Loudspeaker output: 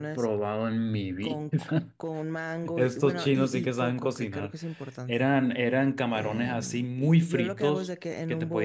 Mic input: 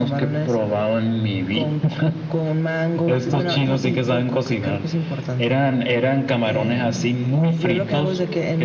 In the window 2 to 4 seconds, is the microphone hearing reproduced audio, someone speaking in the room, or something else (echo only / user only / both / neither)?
echo only